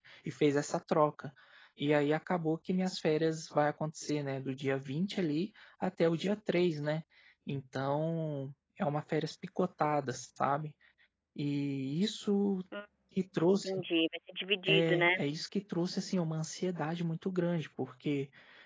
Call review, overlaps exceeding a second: none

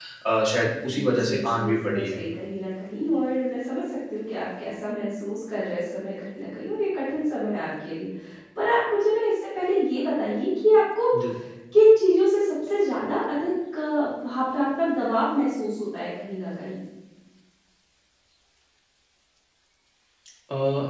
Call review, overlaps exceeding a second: present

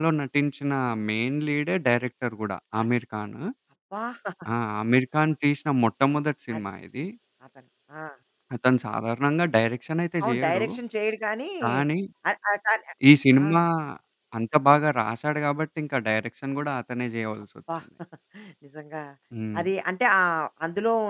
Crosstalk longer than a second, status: none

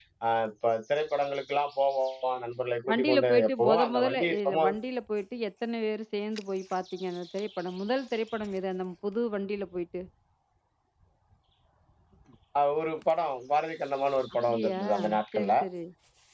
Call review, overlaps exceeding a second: present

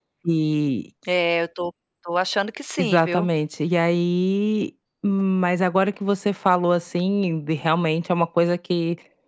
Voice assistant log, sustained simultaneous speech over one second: none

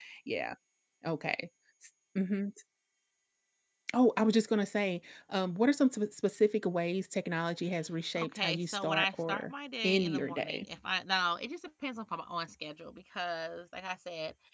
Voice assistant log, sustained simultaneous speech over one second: present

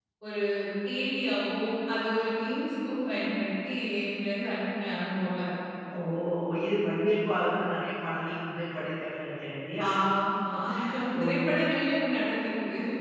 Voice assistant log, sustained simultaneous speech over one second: none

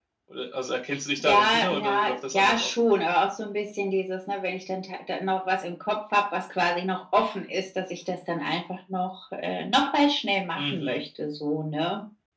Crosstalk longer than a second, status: present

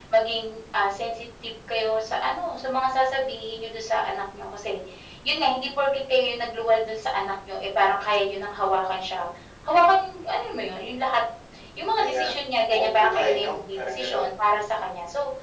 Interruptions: present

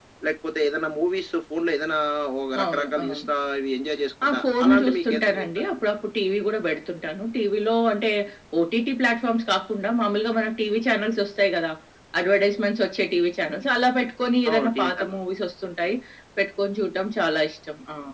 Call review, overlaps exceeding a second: present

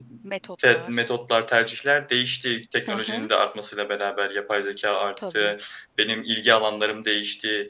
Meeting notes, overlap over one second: none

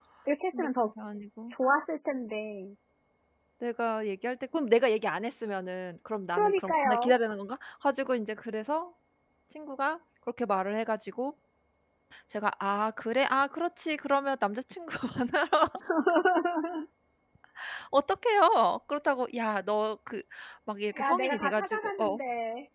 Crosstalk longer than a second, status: present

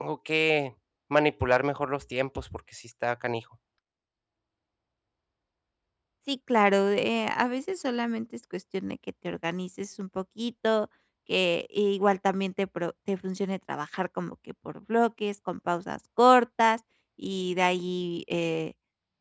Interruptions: none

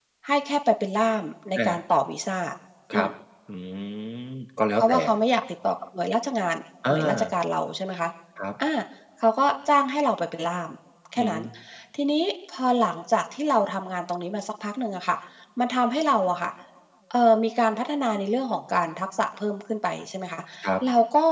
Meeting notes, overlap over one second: none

